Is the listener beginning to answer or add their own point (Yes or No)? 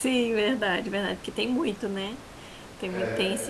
No